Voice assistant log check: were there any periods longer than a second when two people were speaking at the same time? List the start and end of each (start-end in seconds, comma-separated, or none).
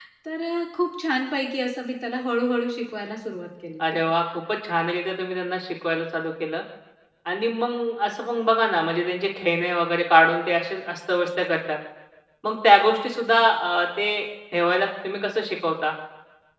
none